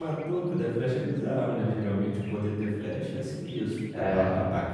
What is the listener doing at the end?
listening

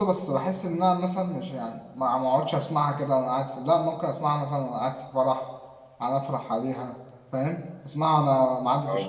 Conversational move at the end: listening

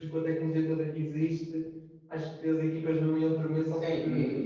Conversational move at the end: taking over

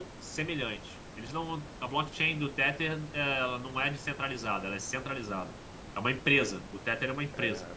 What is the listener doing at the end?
taking over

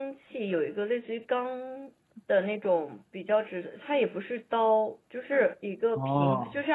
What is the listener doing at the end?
listening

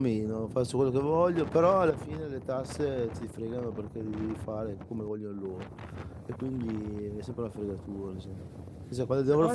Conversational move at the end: listening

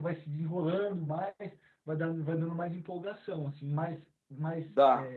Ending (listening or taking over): taking over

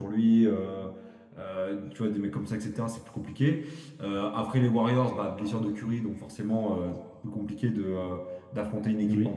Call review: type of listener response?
listening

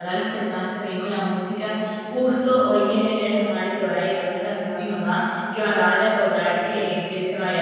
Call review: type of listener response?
listening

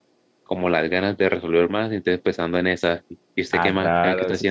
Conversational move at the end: taking over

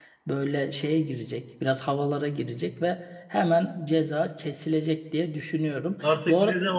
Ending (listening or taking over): taking over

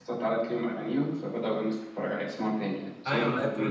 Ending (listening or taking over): taking over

